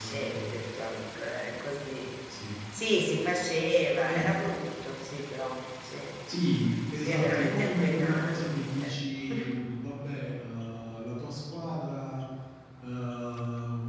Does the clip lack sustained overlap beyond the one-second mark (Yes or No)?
No